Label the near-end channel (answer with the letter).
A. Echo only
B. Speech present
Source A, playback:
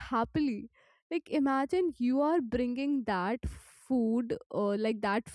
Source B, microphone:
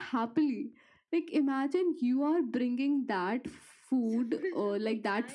B